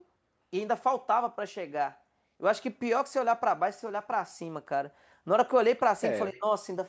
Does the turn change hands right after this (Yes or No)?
No